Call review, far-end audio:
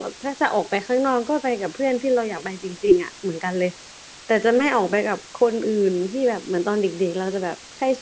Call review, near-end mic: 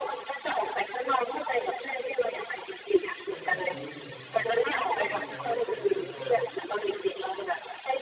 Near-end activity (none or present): present